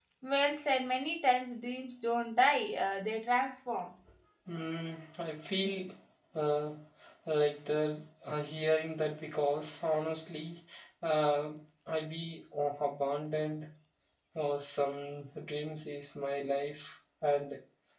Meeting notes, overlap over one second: none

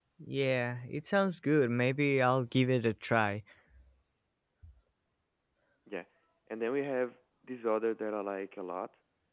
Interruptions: none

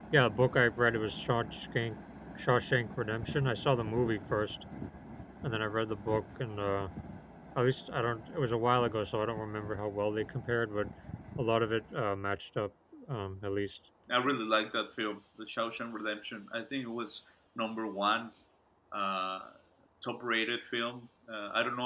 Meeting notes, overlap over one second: none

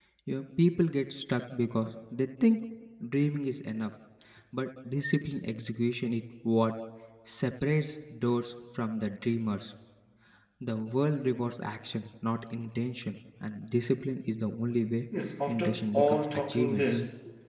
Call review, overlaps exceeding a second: present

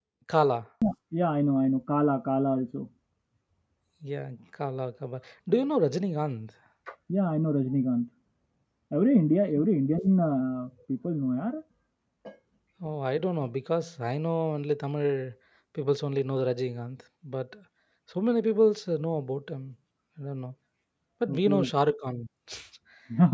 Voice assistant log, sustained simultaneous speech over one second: none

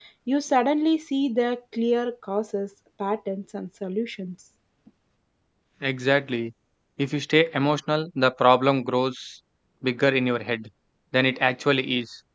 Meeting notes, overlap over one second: none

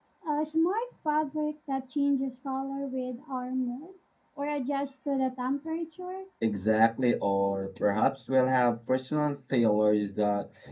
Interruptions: none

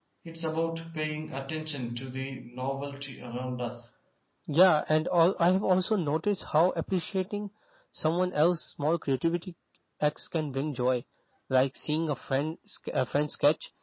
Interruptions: none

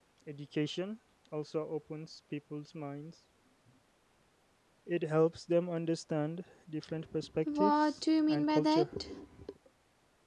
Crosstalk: present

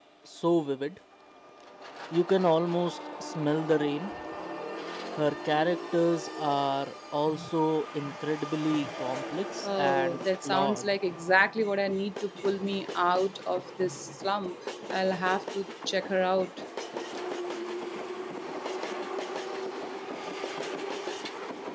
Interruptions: present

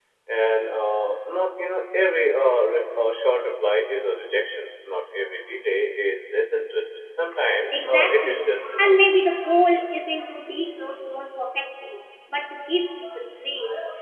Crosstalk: present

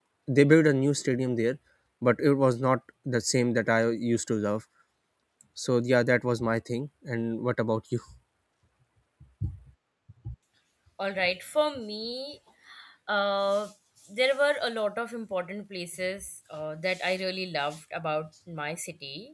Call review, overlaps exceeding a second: none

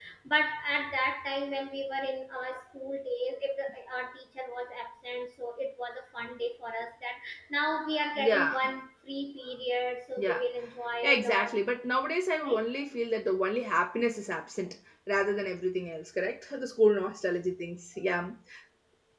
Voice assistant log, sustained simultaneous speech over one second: none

